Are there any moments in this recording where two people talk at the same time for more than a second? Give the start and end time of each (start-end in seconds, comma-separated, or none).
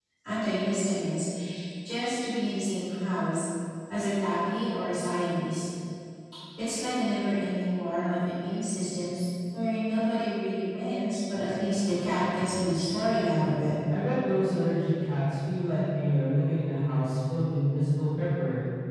none